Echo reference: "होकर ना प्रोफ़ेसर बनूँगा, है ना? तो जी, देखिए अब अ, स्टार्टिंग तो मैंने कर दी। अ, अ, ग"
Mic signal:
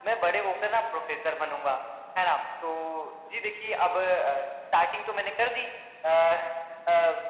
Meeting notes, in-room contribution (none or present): none